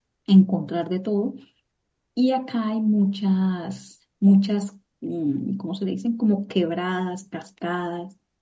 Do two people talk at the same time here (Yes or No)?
No